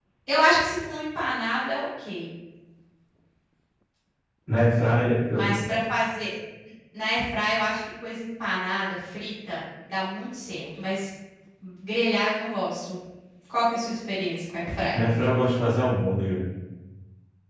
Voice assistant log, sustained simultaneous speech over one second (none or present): none